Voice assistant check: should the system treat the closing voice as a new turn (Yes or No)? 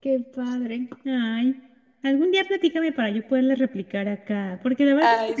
No